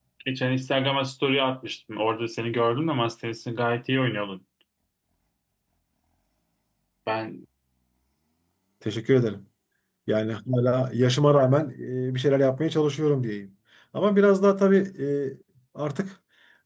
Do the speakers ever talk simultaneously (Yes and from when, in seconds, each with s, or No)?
No